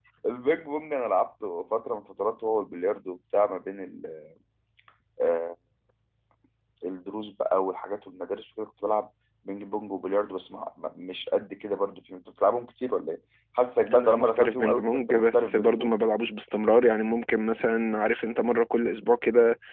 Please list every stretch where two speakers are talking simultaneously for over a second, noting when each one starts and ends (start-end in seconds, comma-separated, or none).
13.9-15.9